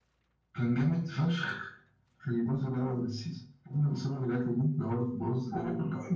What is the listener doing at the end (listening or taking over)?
taking over